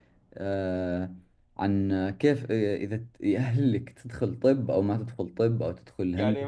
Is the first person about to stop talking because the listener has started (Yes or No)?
Yes